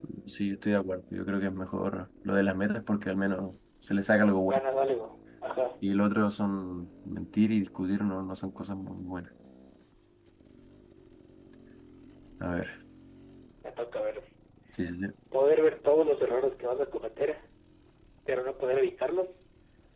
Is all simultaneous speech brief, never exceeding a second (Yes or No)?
Yes